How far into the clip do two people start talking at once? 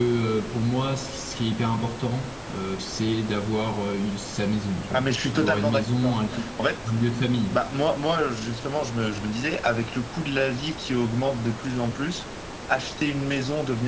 5 s

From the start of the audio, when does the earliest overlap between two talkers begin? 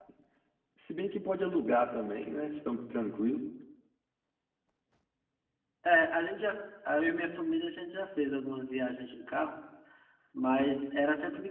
none

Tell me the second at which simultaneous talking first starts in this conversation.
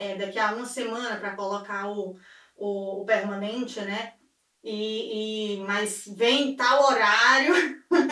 none

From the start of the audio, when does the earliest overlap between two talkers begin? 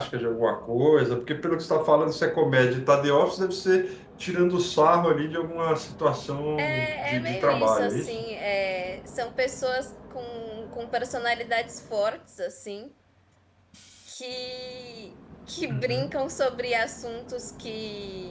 7 s

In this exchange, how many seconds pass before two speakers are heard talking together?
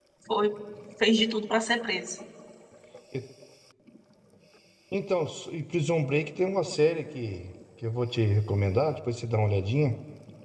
none

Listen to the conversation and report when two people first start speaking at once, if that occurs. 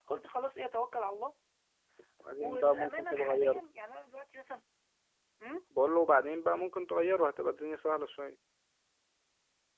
2 s

